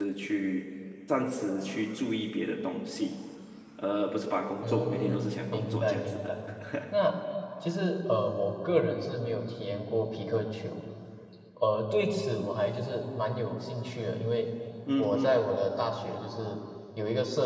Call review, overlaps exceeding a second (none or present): present